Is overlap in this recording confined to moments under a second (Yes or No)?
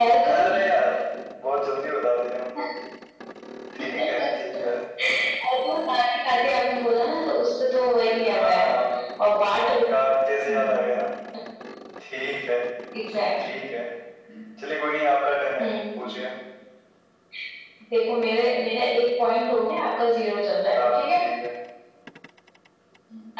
Yes